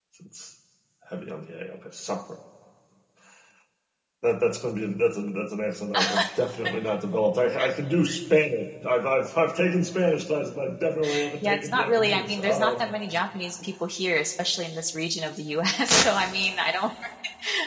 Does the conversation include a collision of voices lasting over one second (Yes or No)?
Yes